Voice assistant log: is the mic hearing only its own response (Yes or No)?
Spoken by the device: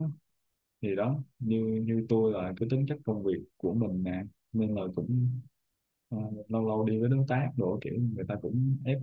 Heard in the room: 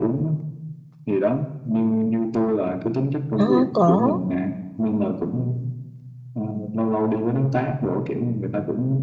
No